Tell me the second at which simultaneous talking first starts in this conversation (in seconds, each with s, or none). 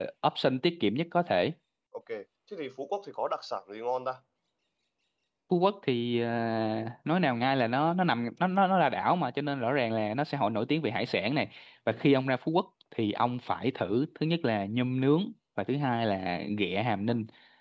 none